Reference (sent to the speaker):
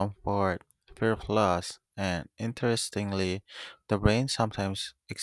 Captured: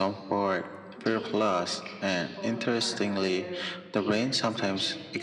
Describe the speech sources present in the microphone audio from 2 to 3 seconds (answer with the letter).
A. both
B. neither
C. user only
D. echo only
A